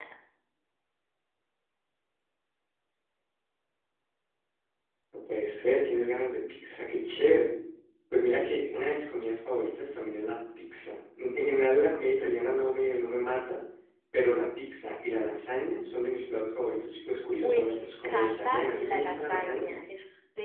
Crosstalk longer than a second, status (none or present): present